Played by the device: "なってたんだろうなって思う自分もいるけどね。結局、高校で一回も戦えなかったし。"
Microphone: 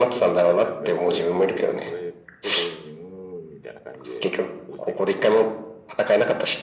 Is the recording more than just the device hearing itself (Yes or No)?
Yes